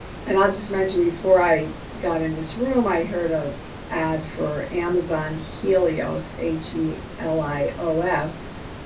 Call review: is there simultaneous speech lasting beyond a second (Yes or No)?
No